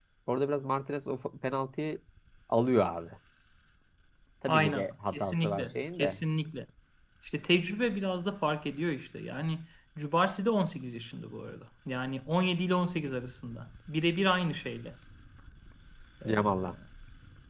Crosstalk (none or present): present